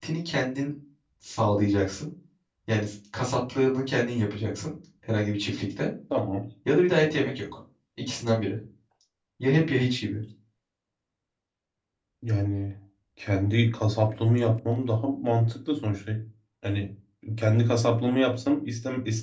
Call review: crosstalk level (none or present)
none